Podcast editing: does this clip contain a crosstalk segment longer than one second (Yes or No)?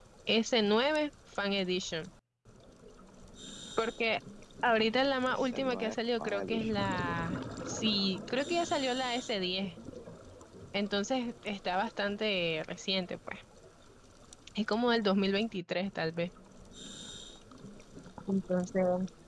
Yes